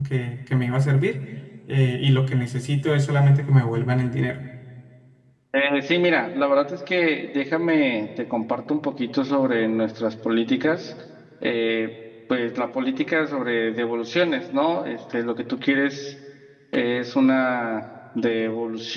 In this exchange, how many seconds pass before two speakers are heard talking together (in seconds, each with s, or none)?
none